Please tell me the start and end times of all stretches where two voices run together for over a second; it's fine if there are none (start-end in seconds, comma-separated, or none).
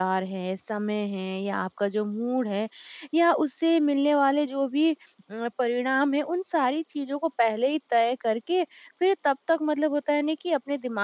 none